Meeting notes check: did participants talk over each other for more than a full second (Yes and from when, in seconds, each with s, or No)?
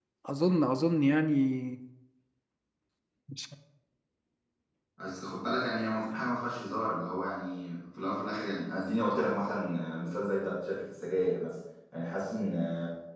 No